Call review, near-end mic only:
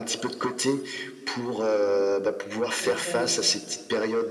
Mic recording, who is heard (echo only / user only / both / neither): both